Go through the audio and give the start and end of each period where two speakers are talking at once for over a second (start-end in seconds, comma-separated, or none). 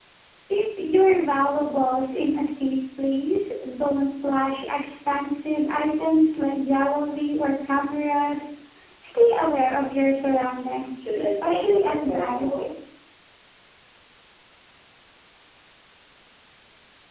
11.0-12.5